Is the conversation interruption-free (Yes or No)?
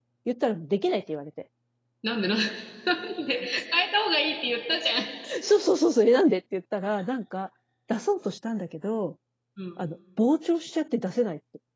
Yes